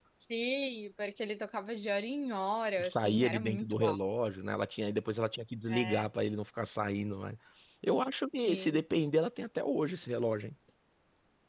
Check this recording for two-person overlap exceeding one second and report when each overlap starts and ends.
2.8-4.0

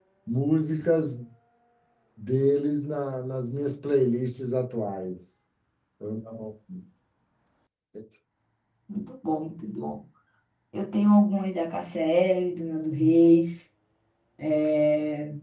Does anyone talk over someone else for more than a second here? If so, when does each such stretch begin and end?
none

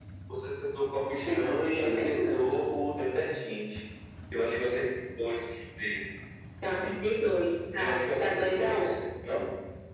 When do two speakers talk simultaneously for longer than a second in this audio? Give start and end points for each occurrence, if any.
1.3-2.6, 7.8-9.0

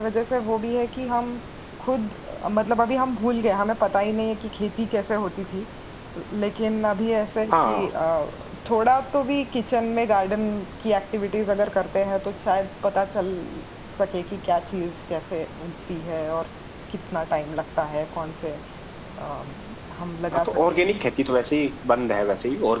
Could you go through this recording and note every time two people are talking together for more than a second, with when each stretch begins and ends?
none

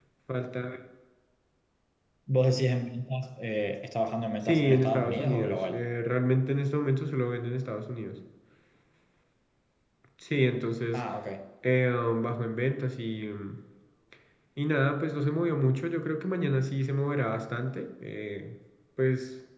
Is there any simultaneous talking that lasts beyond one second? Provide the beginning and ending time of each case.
4.5-5.8

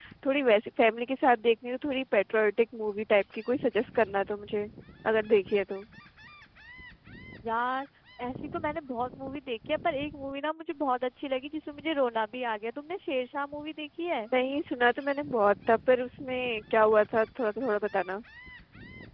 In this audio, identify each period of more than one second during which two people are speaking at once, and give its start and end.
none

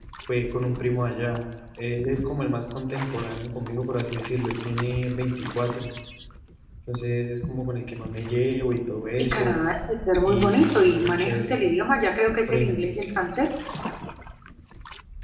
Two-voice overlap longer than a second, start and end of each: 10.2-11.6

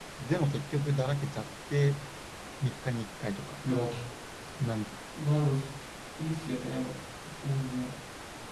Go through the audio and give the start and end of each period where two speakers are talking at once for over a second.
none

